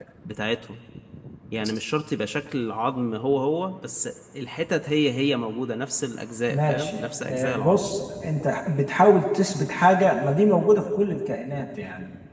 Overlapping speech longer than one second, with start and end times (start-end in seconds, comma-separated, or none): 6.5-7.8